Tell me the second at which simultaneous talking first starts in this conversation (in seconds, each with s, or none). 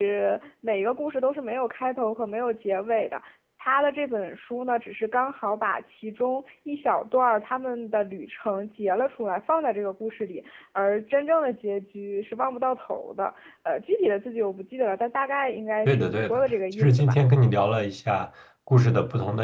15.8 s